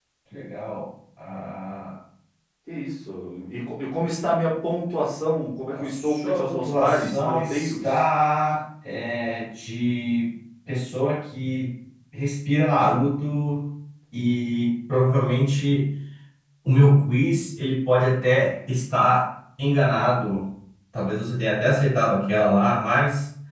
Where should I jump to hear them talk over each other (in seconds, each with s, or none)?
5.7 s